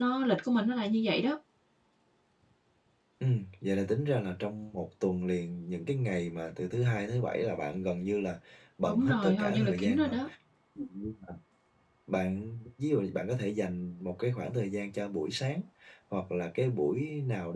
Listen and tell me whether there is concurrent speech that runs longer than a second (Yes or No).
Yes